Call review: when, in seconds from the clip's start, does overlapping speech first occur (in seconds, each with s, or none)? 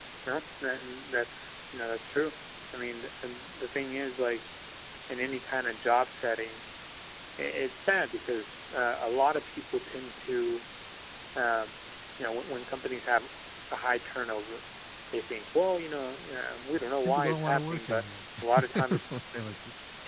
16.7 s